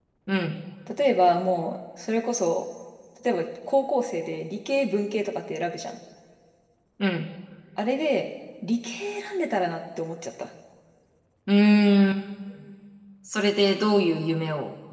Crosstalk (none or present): none